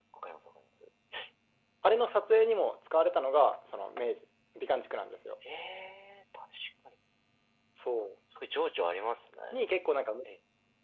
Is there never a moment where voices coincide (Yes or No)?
Yes